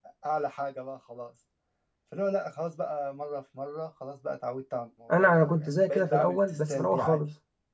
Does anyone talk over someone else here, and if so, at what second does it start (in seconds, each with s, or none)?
5.1 s